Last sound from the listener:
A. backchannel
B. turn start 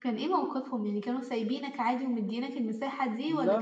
B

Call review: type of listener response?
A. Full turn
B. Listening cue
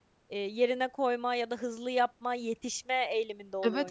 A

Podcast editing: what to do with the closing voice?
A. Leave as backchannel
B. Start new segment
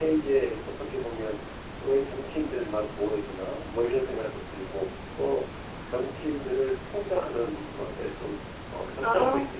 A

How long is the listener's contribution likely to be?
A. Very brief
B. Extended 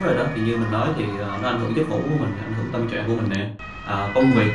A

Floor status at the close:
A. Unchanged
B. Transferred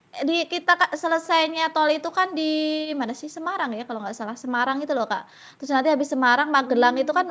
A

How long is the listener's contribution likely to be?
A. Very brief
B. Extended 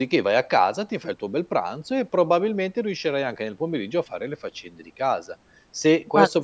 A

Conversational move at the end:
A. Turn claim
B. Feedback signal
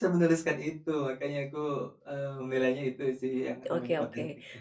A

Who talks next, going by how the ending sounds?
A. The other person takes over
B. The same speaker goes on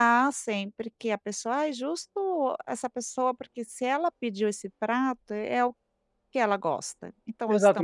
A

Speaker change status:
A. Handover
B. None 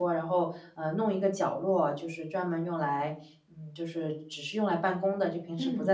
B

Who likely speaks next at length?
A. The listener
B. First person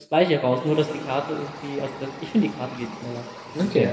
A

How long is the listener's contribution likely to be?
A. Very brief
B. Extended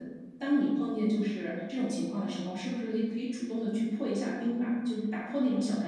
B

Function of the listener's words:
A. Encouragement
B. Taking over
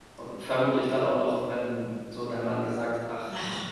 A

